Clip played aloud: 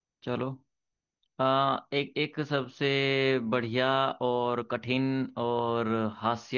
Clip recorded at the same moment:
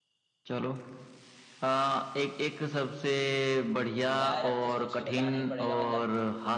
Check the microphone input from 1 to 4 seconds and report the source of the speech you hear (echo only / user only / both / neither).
echo only